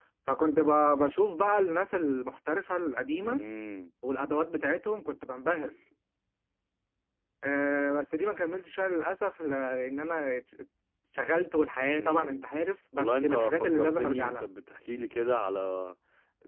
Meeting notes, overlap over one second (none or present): present